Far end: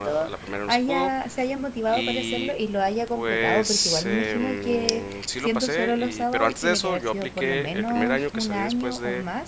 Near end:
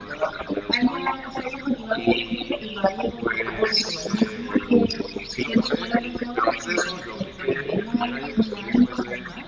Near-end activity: none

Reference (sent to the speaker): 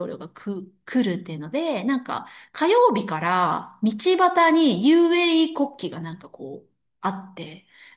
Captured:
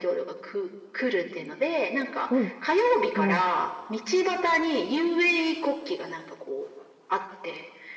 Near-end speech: present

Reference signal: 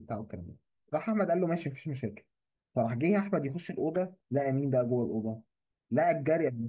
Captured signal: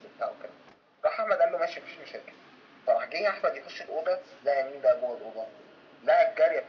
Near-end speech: none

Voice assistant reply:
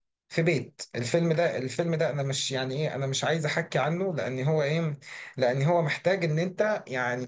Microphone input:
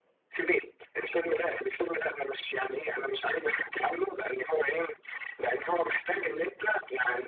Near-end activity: none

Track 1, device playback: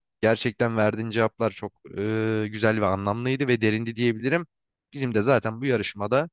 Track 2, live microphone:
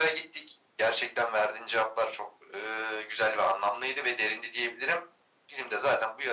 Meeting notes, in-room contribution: none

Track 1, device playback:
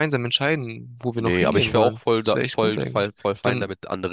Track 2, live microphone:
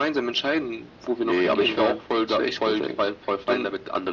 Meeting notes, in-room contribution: none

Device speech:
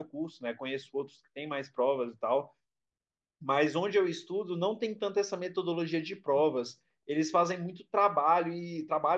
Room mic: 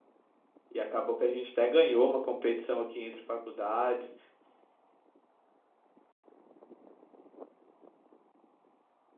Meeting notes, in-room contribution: present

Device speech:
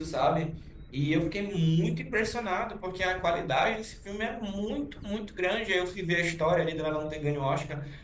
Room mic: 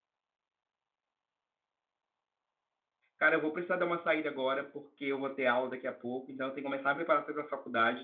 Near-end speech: present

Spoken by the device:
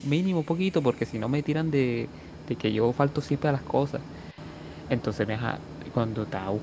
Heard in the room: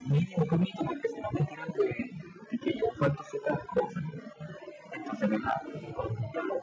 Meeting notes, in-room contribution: none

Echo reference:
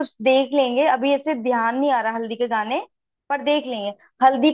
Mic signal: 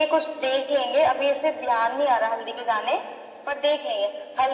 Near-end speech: none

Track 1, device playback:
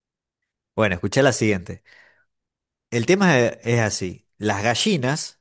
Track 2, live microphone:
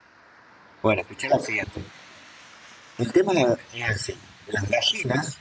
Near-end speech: none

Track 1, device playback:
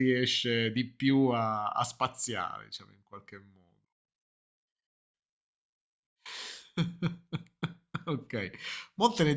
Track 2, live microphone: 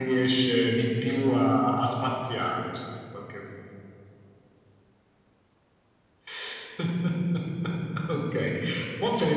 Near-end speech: none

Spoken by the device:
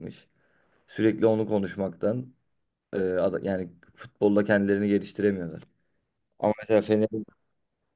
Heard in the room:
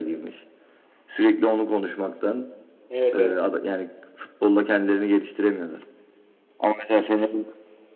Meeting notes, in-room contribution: present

